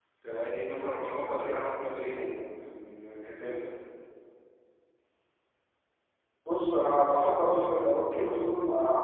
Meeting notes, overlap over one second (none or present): none